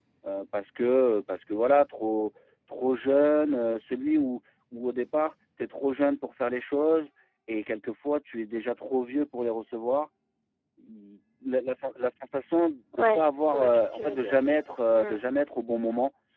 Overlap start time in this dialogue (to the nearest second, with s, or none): 13 s